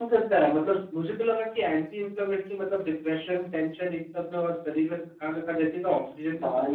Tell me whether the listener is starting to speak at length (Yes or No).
No